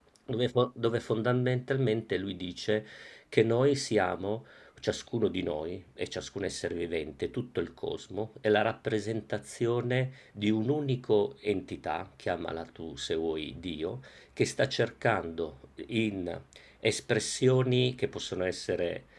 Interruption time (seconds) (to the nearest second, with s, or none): none